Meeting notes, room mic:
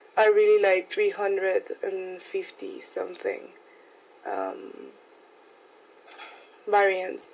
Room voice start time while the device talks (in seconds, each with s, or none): none